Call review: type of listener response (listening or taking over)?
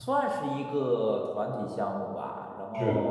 listening